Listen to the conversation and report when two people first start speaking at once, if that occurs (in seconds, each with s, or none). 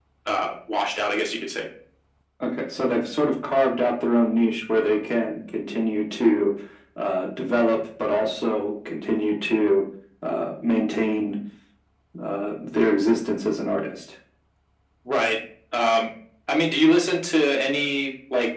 none